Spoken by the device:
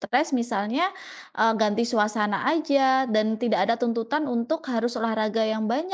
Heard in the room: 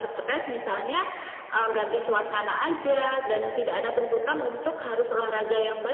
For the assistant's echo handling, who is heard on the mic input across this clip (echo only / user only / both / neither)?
echo only